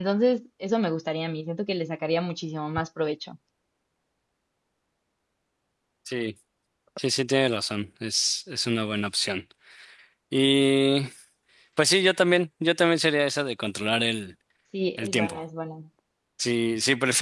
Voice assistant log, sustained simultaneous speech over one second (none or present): none